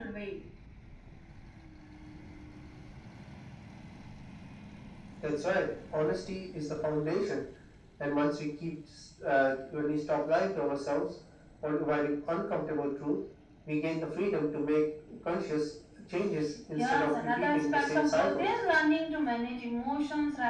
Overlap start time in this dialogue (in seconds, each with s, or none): 16.8 s